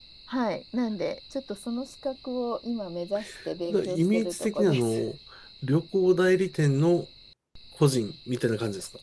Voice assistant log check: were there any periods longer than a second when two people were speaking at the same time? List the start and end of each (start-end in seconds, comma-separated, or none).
3.7-5.0